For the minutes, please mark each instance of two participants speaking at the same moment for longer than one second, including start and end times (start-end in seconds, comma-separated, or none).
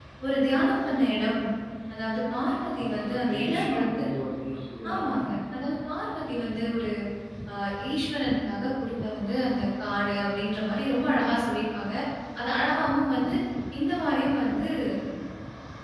2.8-4.0